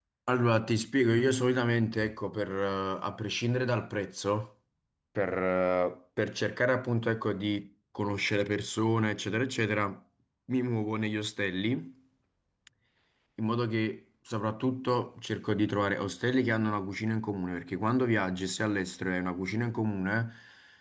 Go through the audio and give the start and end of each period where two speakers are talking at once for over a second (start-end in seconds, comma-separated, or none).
none